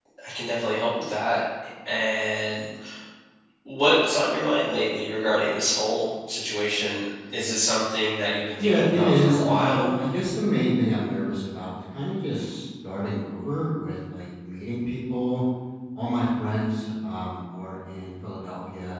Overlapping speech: Yes, from 8.6 s

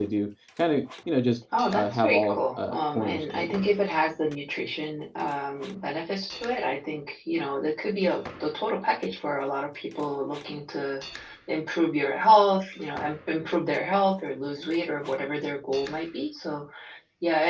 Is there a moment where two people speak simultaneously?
Yes, from 1.5 s

